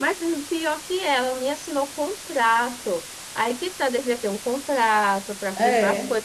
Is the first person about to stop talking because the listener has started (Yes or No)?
No